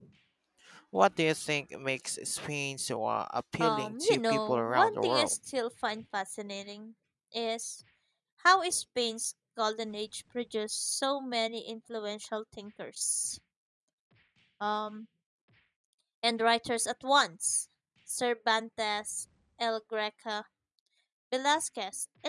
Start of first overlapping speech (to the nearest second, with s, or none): 4 s